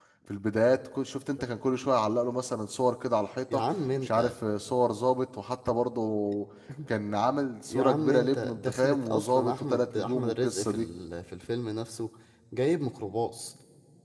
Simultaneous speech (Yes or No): Yes